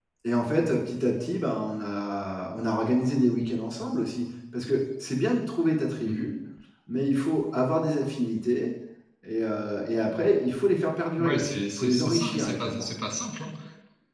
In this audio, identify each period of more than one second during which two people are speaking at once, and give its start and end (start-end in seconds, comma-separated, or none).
11.2-12.9